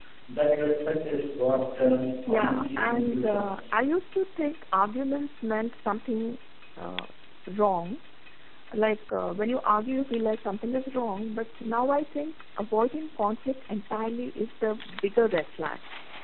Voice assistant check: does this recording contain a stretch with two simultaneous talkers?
Yes, from 2.3 s

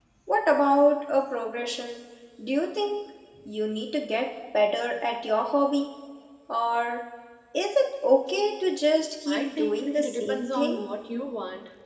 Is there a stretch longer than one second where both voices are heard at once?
Yes, from 9.3 s

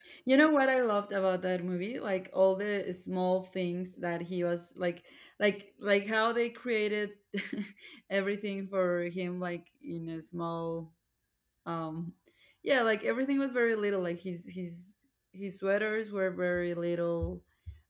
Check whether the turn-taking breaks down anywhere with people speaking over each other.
No

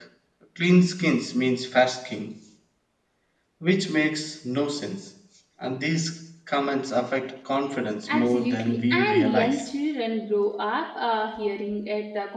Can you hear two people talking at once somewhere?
Yes, from 8.1 s

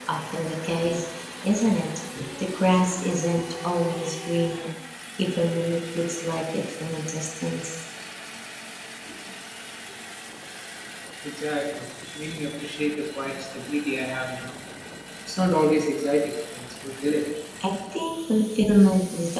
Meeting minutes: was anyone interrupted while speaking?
No

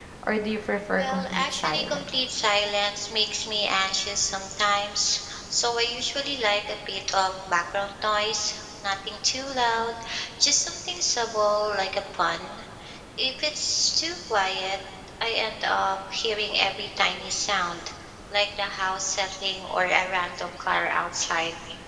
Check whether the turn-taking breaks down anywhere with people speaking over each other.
Yes, from 1.0 s

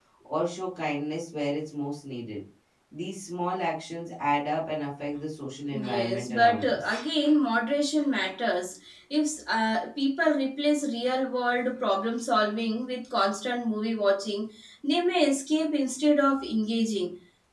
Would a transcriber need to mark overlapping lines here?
Yes, from 5.7 s

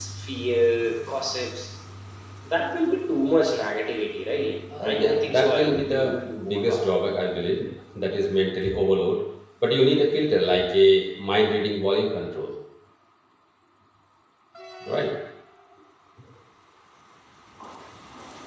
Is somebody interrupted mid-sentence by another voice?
Yes, from 4.7 s

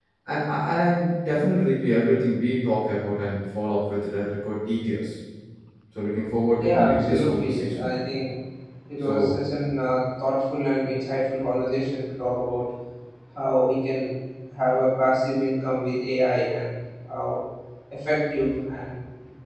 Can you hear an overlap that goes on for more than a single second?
Yes, from 6.6 s

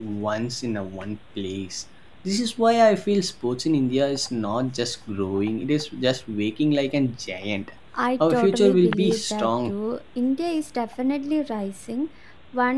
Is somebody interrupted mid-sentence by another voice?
Yes, from 8.2 s

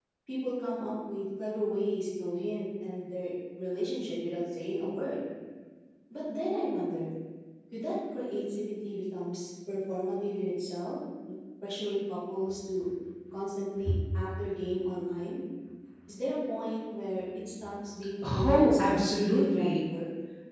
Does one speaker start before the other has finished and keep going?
Yes, from 18.2 s

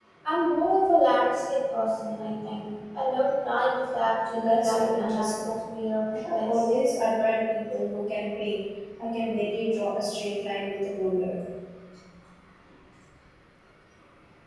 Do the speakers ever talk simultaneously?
Yes, from 4.3 s

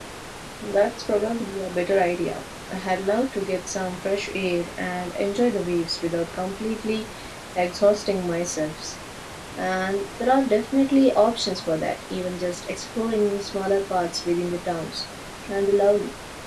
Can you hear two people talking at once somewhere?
No

